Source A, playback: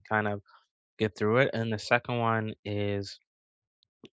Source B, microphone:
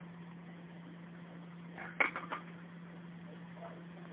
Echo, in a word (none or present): none